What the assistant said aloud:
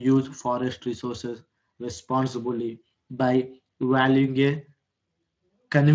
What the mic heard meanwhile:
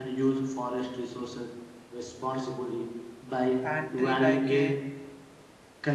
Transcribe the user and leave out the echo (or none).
and tree like a